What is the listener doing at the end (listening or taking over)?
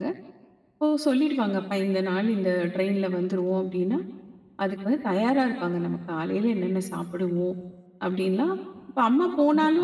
listening